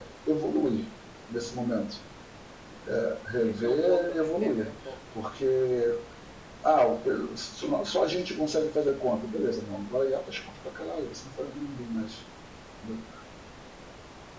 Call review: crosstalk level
present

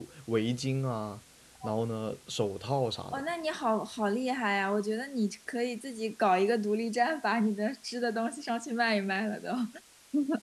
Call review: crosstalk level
none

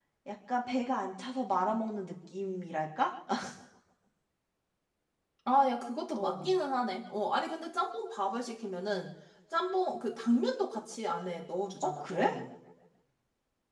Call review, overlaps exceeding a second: none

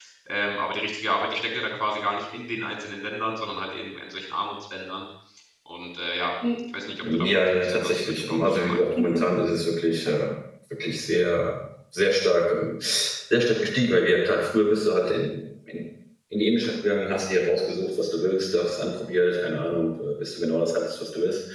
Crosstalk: present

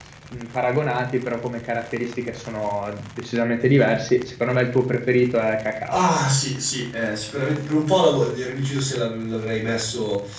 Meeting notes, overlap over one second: none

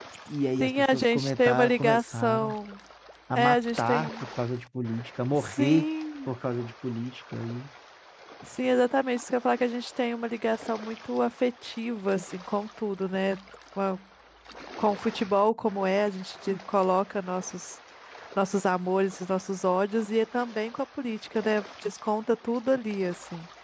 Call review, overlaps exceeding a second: present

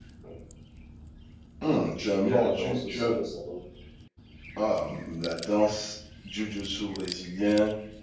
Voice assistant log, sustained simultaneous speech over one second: present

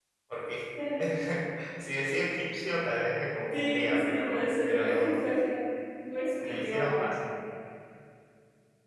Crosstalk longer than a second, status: present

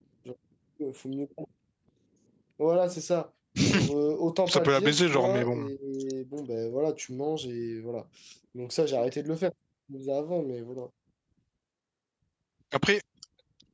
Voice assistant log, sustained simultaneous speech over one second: present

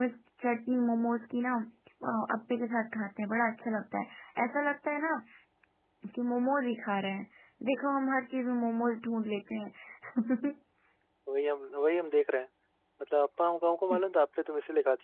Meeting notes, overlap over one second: none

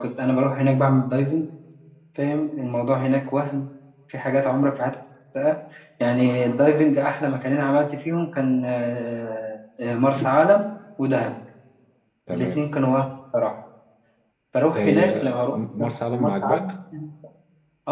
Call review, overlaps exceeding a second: present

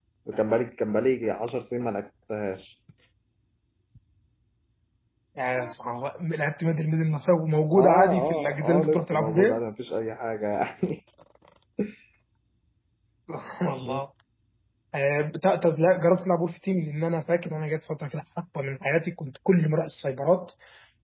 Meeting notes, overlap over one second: present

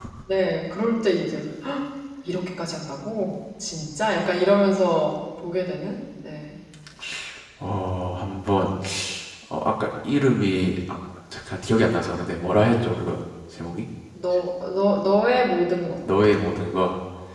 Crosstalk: none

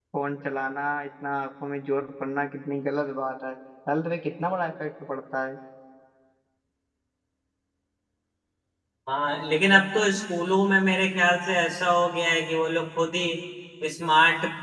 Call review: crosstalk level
none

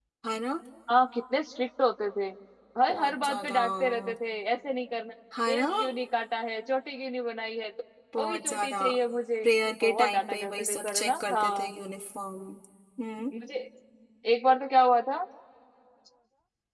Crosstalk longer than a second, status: present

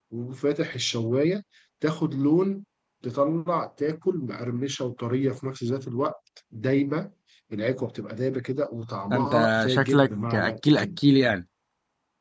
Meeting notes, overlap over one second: present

